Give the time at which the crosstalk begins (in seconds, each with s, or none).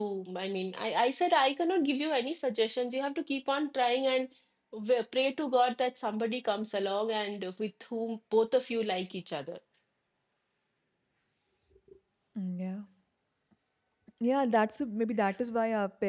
none